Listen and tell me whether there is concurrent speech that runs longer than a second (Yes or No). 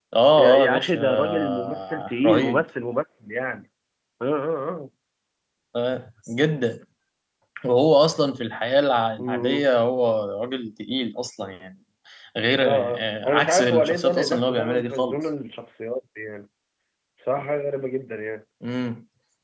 Yes